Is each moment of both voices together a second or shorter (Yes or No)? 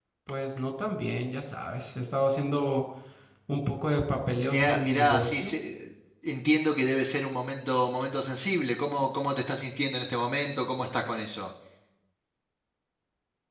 No